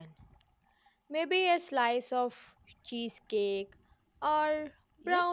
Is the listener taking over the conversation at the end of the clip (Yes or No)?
Yes